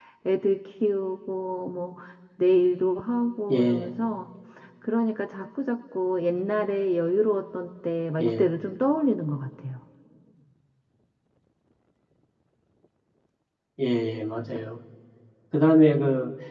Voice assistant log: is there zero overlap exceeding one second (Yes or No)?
Yes